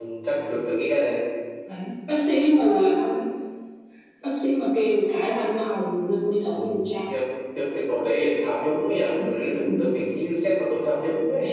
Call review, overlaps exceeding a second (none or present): none